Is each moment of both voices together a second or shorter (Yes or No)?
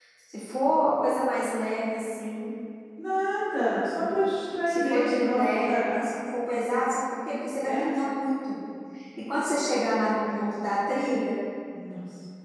No